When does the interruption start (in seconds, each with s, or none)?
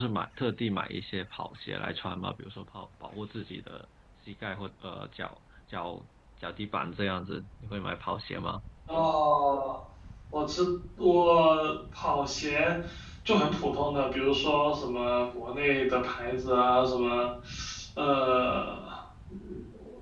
none